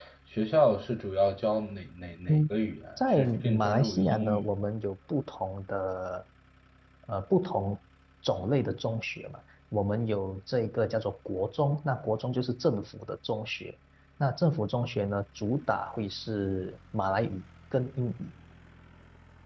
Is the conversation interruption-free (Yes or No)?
No